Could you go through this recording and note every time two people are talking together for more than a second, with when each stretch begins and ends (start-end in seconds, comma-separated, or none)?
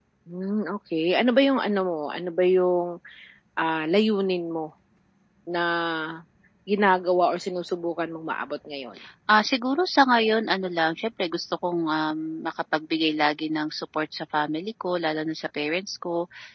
none